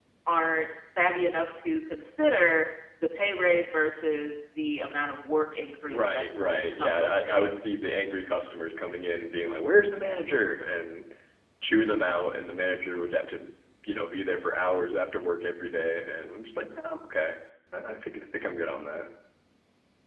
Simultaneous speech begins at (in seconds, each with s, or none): 5.9 s